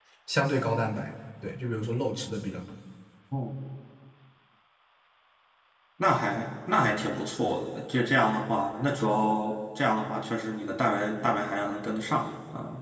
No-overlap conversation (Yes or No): Yes